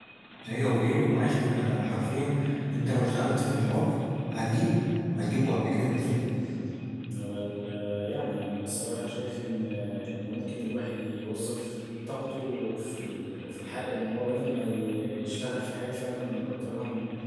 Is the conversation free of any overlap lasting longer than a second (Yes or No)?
Yes